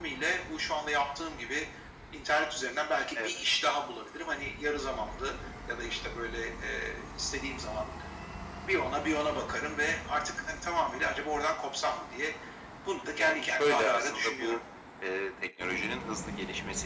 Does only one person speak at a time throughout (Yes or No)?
No